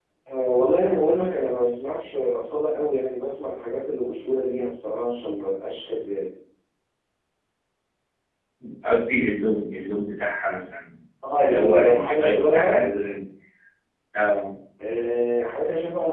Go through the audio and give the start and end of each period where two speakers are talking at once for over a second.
11.4-12.9

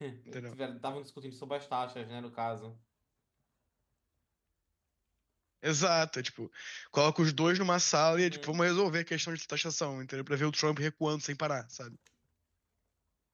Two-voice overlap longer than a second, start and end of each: none

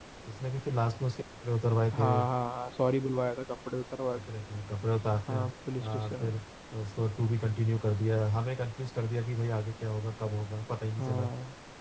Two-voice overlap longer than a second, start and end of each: none

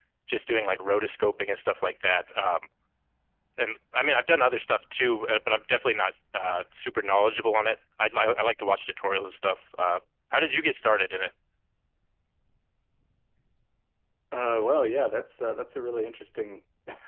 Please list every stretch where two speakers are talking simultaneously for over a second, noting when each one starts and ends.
none

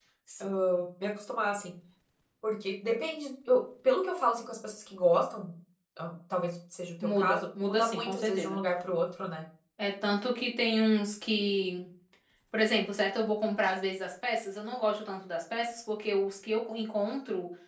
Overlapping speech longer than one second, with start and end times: 7.2-8.6

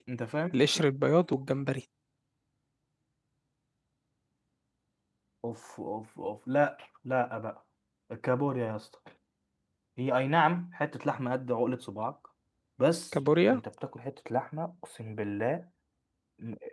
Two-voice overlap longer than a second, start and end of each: none

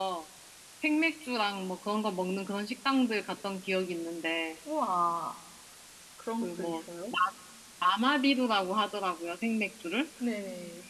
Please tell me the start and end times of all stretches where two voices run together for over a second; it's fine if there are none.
none

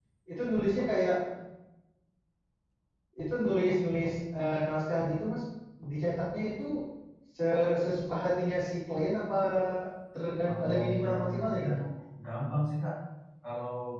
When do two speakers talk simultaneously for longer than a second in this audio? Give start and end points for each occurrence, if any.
10.4-11.7

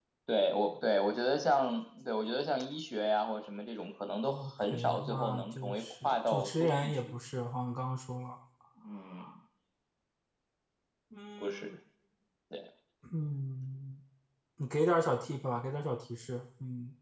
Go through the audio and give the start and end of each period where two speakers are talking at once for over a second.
4.2-7.1

